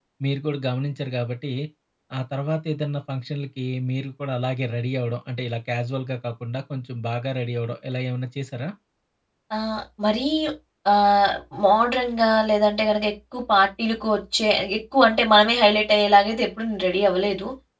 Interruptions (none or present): none